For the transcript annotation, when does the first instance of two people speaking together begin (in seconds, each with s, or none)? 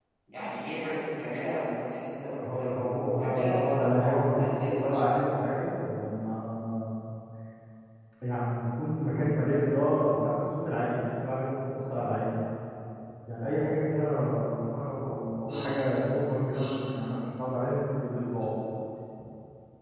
2.4 s